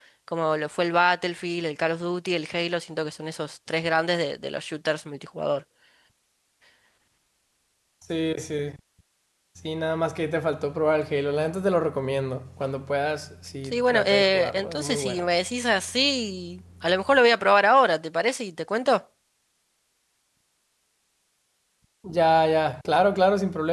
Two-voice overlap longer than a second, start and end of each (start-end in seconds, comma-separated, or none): 13.6-15.2